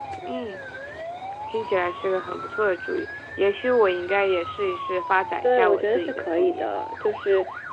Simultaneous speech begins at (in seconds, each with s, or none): 5.4 s